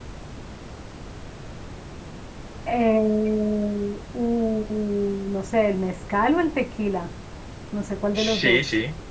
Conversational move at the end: taking over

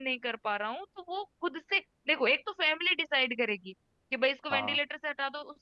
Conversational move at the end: listening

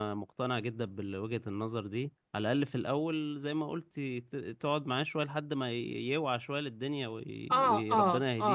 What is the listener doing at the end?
taking over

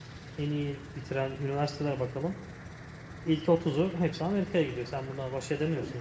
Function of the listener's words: taking over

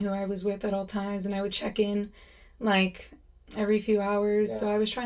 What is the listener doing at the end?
listening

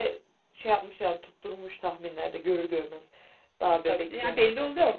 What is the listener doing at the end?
taking over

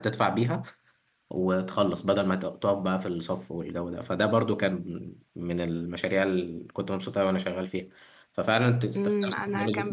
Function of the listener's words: taking over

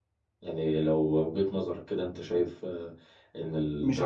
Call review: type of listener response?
taking over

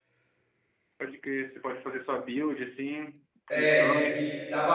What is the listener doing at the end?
taking over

